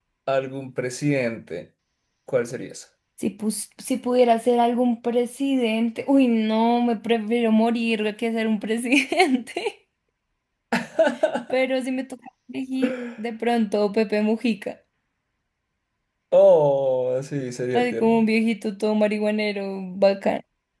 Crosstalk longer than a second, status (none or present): none